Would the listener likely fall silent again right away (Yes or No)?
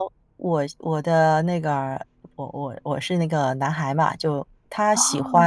Yes